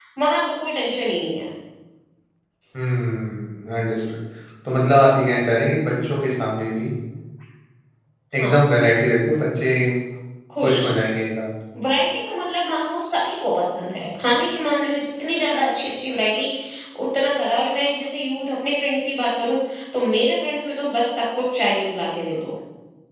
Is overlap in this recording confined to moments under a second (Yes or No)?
Yes